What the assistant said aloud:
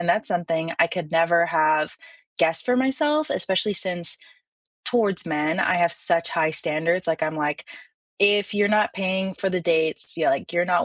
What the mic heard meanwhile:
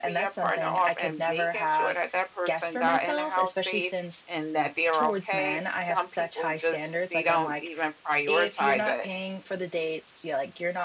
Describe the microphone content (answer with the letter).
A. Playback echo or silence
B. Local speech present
B